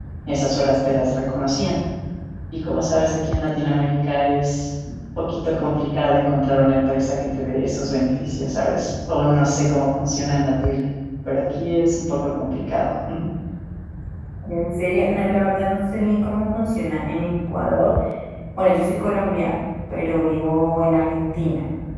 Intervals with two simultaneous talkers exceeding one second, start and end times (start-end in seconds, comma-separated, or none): none